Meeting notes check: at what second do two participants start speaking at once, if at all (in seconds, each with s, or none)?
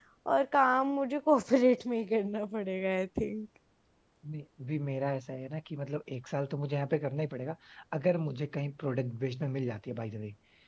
none